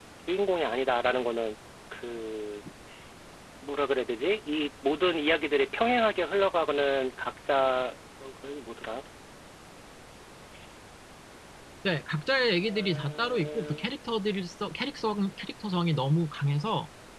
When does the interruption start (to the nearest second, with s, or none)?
13 s